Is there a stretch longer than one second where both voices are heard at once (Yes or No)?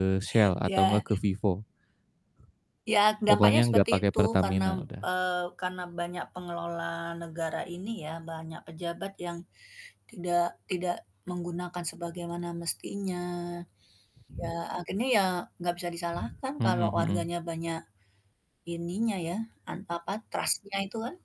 Yes